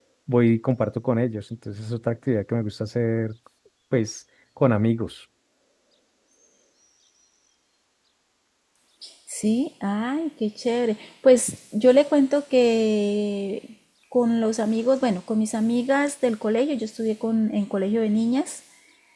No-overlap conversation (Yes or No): Yes